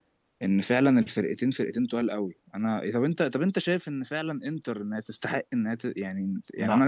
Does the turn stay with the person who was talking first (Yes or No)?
Yes